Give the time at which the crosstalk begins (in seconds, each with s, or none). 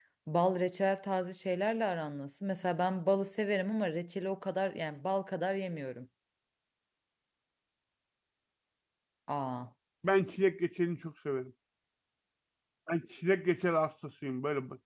none